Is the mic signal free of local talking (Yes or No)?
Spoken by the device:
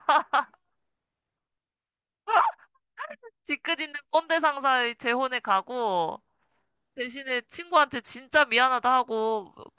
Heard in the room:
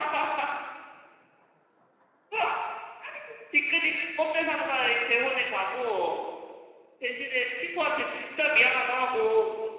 Yes